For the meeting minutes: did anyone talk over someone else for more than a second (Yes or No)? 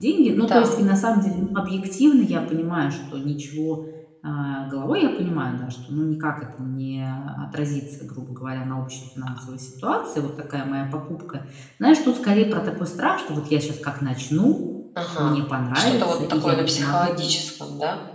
Yes